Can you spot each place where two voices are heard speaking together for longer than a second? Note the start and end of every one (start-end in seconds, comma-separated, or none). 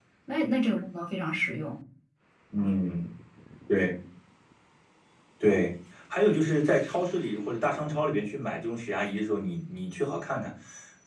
none